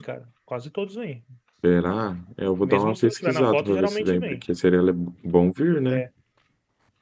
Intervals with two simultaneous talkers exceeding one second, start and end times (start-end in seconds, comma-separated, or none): 2.6-4.4